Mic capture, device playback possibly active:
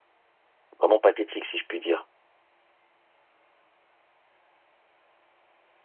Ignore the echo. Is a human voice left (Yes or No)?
Yes